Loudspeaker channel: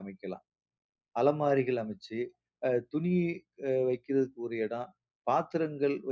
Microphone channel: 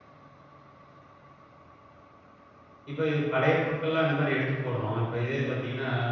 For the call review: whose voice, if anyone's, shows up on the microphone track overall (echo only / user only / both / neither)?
user only